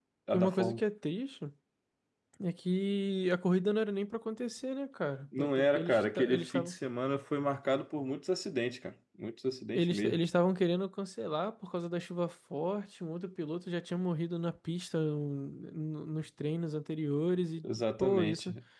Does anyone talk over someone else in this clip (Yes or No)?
Yes